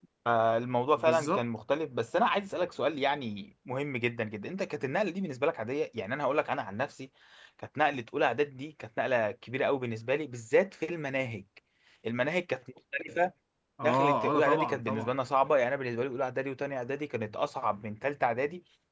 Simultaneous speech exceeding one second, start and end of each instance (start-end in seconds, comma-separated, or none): 13.8-15.2